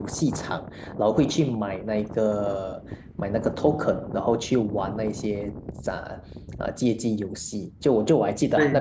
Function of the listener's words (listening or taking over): listening